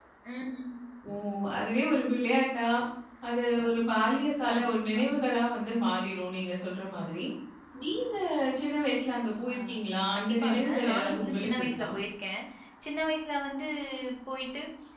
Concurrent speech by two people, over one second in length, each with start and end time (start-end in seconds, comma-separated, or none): 10.2-11.9